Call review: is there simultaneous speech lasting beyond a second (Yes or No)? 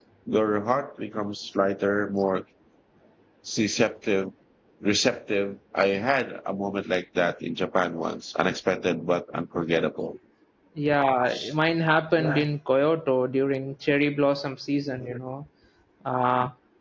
No